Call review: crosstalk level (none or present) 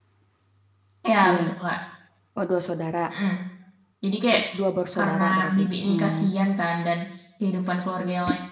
present